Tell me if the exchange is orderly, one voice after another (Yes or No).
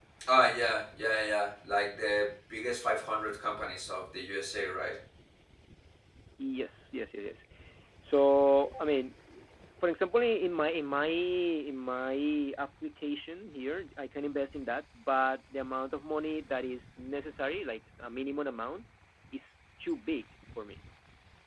Yes